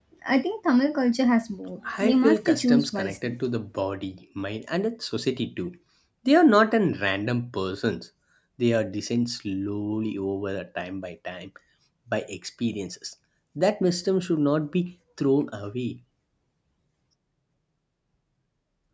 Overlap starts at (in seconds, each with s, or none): 1.8 s